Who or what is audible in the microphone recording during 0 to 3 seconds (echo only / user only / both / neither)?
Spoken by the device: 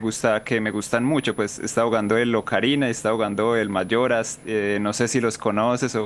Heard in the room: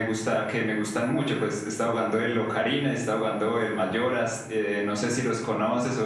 echo only